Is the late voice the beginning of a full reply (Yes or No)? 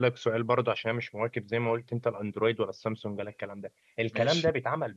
No